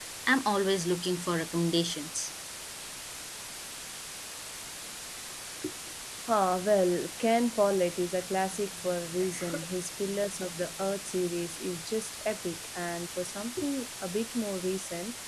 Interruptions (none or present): none